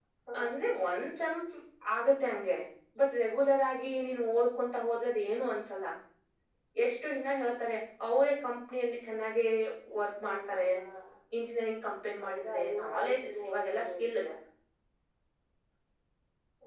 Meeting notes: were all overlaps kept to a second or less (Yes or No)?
No